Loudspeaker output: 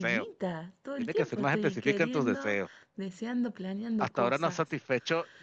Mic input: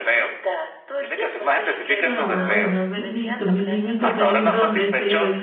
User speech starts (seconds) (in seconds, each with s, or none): 2.0 s